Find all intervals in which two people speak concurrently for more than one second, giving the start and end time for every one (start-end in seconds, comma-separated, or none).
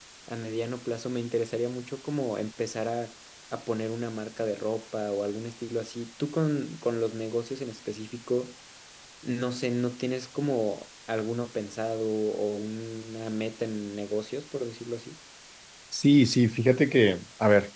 none